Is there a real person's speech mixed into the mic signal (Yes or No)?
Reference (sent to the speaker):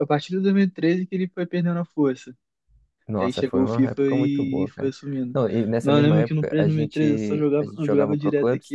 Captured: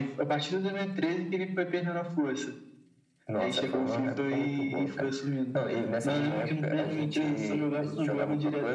No